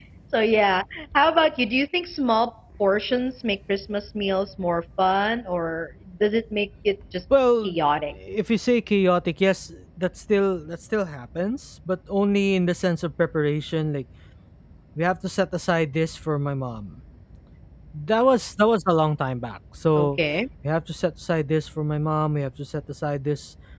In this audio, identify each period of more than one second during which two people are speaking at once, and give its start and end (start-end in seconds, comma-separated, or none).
none